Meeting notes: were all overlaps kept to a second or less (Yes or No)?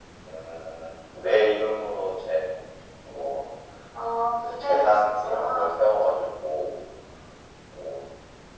No